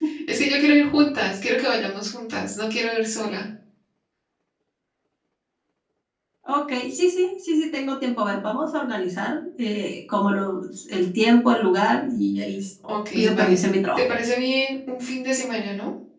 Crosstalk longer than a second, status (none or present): none